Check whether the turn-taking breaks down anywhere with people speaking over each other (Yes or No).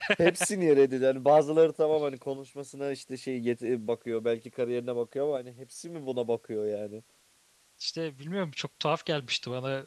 No